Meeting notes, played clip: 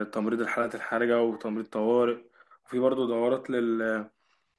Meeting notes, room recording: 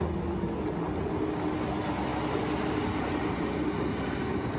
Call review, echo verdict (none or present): none